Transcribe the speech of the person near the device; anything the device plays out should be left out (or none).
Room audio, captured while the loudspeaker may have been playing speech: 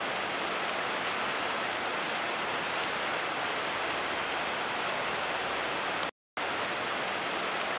none